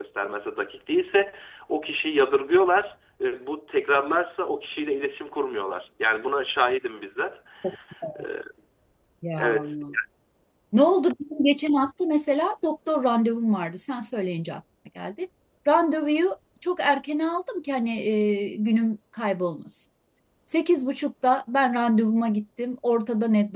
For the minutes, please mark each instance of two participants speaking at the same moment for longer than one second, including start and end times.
none

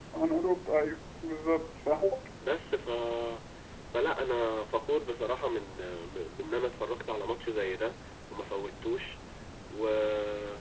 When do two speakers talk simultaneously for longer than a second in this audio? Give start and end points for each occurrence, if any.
none

